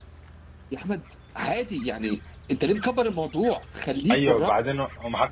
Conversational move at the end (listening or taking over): taking over